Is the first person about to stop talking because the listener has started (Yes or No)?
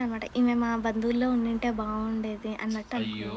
Yes